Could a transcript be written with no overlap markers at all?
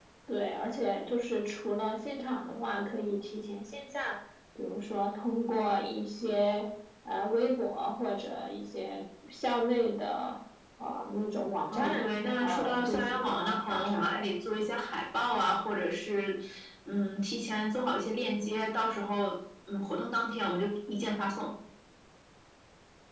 No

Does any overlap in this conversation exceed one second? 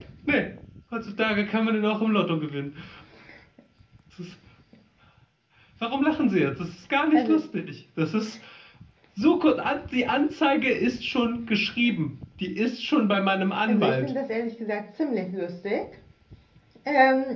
No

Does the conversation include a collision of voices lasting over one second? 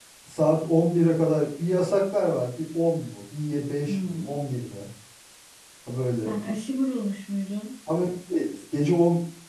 No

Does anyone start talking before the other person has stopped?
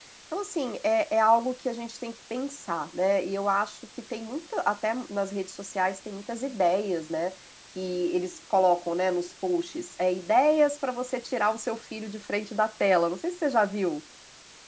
No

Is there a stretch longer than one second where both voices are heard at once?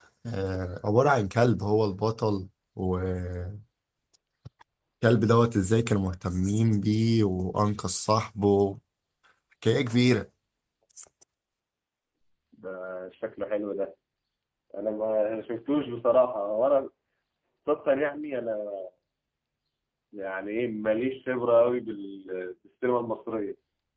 No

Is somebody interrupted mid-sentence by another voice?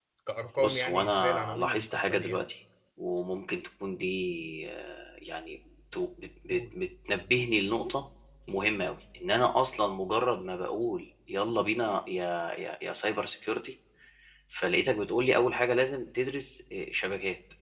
Yes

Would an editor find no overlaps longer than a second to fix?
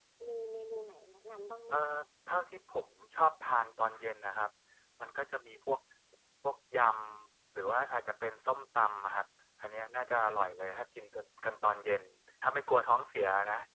Yes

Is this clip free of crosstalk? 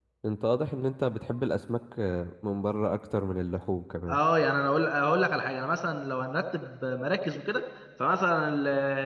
Yes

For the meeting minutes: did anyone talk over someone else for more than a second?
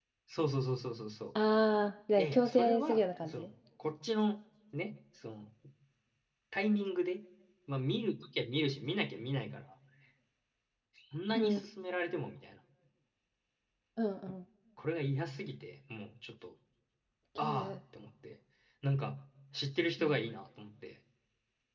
Yes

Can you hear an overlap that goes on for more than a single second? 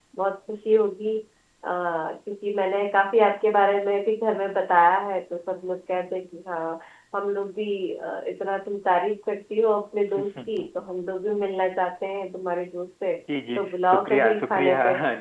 Yes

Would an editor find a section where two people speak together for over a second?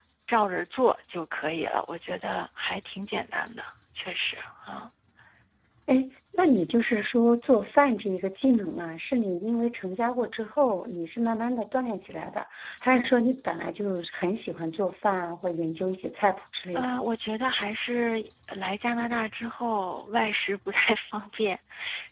No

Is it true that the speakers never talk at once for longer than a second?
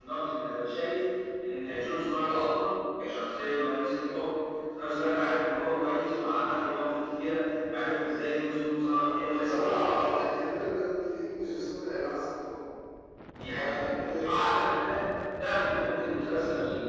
No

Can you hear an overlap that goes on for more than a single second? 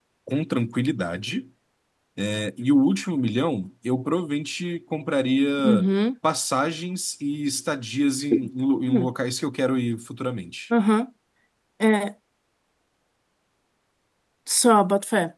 No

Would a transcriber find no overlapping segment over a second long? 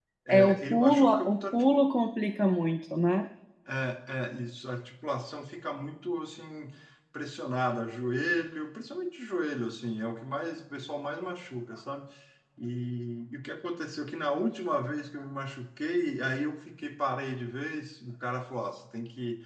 No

